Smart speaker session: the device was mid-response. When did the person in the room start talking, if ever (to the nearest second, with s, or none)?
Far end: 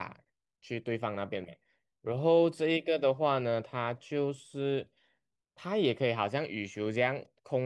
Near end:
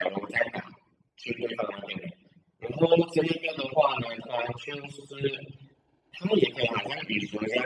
none